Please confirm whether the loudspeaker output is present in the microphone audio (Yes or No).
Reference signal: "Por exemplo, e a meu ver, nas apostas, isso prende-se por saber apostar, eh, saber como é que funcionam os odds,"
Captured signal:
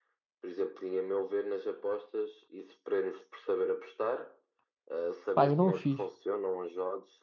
Yes